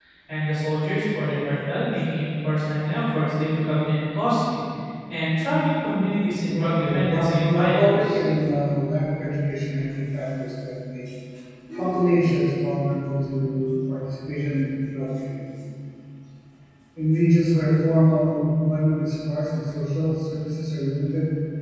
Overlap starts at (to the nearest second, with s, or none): 7 s